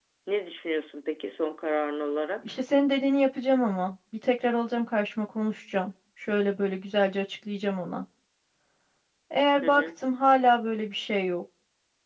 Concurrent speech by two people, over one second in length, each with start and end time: none

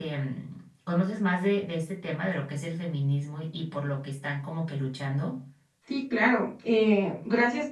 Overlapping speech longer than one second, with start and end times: none

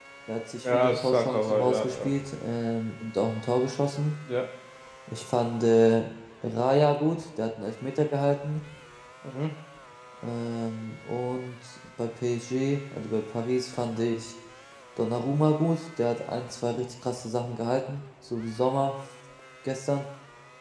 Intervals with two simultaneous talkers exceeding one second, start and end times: 0.6-2.1

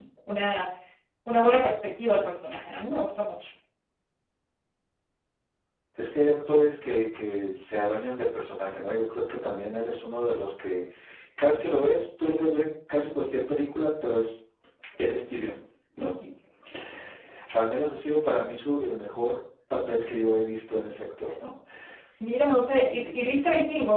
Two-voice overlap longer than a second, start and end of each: none

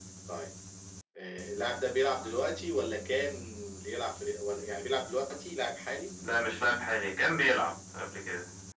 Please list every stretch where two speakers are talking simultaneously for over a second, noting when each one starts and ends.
none

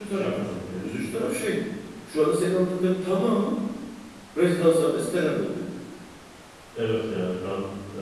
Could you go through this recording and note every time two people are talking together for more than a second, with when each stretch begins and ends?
none

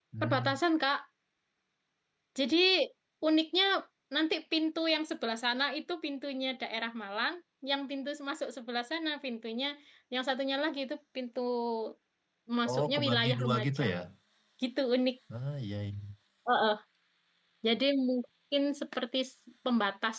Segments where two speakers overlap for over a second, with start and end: 12.7-13.9

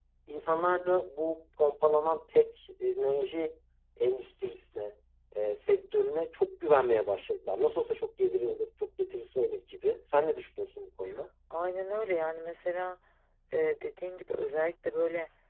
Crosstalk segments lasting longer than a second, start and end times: none

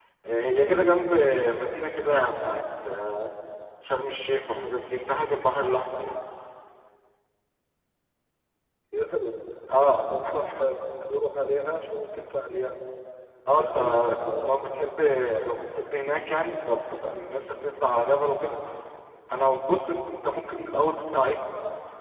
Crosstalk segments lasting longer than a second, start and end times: none

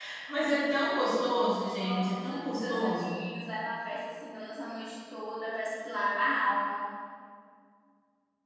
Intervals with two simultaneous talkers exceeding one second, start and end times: 1.8-3.2

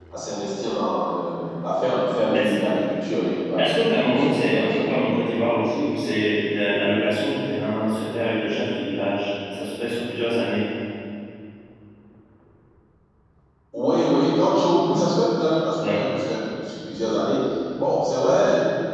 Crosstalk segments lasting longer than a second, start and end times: 3.6-5.2

